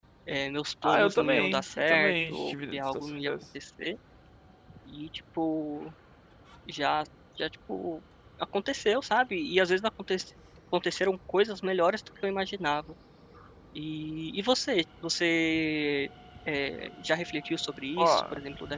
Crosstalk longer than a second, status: present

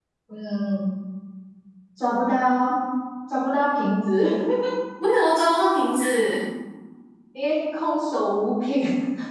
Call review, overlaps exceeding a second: none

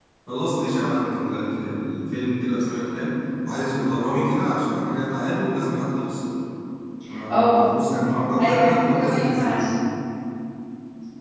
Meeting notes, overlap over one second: present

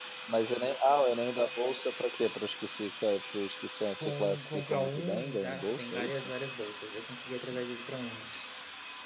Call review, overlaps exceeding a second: present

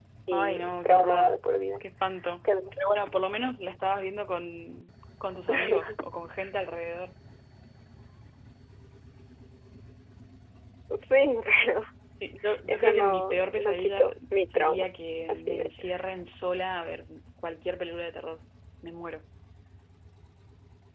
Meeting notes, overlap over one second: present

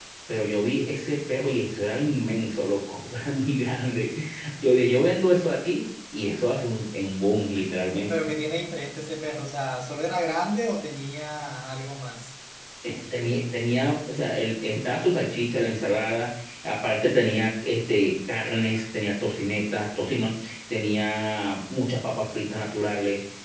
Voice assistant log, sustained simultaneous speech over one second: none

